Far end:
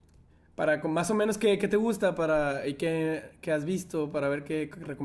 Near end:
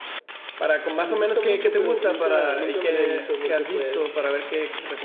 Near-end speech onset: 1 s

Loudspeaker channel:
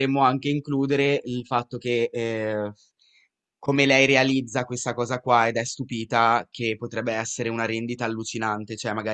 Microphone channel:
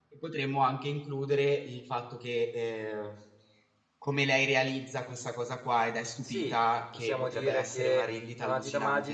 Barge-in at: 6 s

